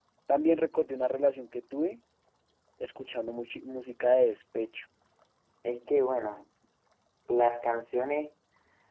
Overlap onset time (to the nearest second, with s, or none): none